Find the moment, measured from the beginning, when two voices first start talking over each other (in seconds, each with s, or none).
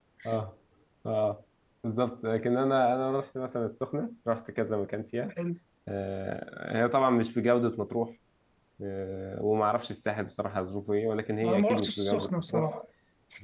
11.4 s